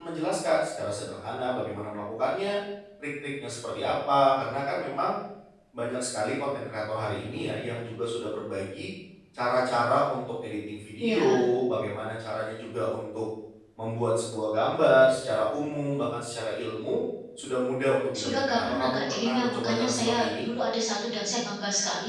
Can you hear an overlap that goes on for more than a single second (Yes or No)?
Yes